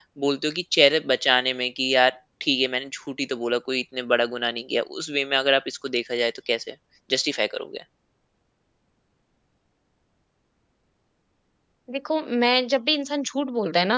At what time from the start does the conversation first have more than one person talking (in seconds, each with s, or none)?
none